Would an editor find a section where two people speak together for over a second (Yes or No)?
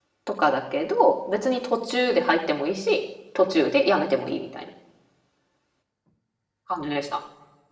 No